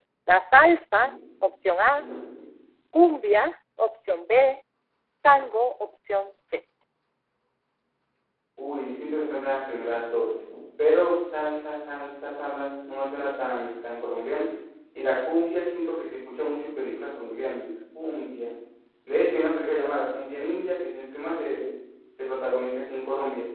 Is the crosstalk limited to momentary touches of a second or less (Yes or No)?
Yes